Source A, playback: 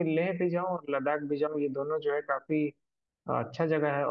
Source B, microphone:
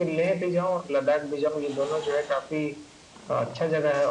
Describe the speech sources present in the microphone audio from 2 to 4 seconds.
echo only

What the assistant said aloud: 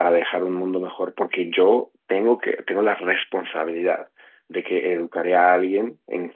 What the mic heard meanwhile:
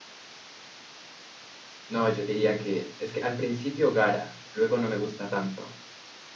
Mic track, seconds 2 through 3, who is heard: user only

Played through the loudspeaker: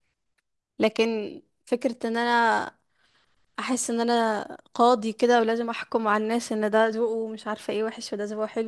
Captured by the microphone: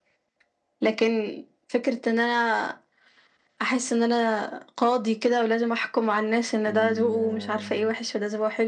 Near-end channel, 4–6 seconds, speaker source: echo only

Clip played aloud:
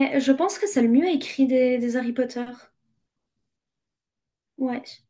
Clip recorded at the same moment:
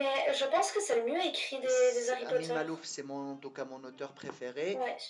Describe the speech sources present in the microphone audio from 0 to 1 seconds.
echo only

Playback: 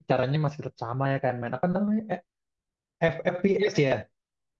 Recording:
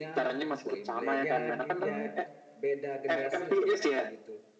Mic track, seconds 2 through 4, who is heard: both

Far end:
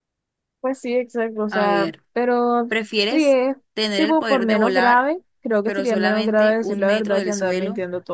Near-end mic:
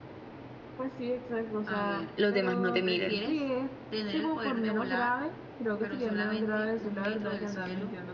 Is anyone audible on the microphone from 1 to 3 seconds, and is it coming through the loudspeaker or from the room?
both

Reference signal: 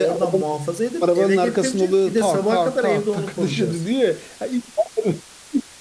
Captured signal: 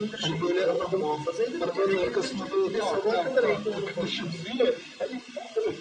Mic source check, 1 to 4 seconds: echo only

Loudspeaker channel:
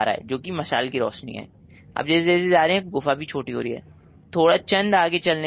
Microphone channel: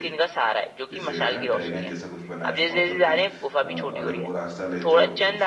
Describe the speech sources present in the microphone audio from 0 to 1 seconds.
both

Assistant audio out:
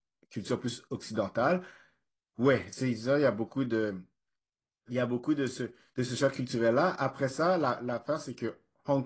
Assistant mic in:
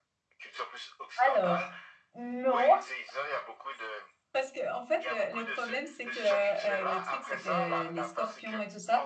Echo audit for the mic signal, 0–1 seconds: echo only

